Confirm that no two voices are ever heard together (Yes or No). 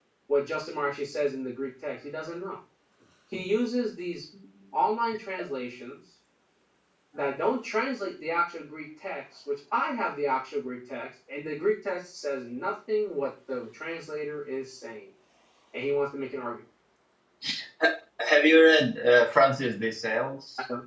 Yes